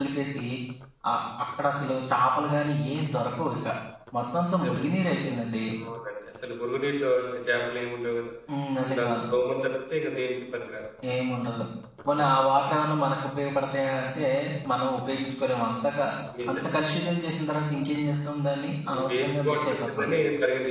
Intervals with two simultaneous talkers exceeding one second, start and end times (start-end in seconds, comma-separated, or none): 18.9-20.1